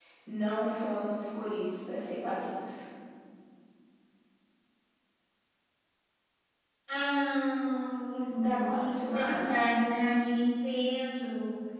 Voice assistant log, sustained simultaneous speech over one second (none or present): present